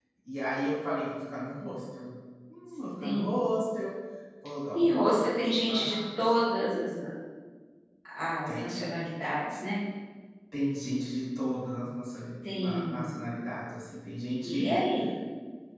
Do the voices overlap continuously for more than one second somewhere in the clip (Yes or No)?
Yes